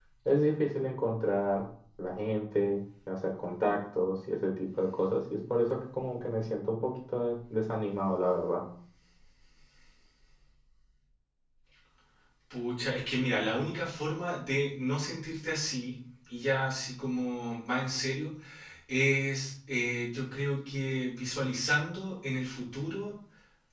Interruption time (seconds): none

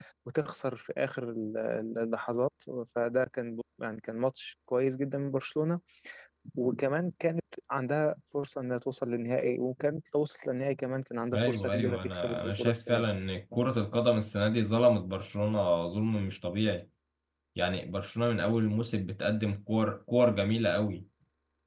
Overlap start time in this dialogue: 11 s

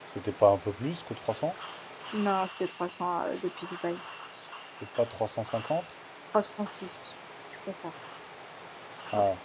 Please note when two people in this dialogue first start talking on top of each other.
none

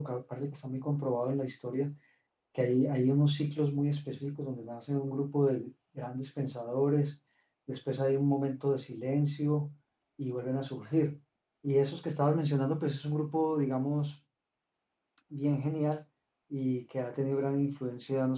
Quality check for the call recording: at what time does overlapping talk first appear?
none

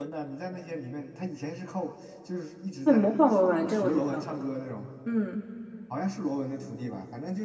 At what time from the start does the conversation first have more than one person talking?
3 s

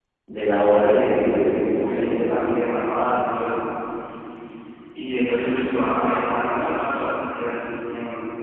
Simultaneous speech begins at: 1 s

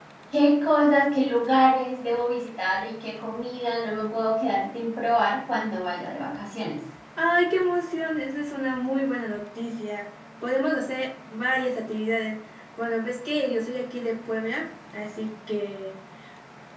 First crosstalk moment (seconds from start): none

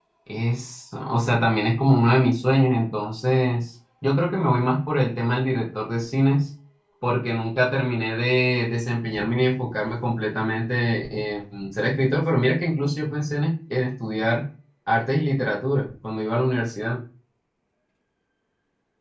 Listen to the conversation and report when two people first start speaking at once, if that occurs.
none

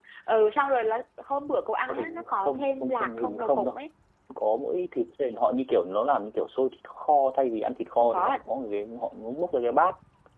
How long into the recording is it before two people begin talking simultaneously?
2 s

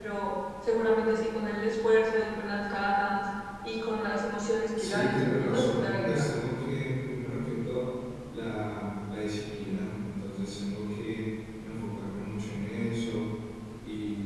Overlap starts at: 5 s

